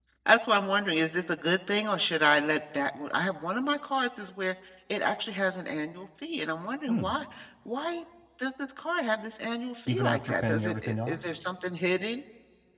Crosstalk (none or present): present